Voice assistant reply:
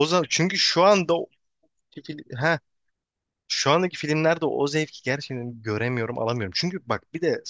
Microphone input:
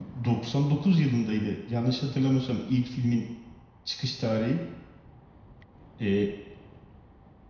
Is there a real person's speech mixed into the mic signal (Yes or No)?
Yes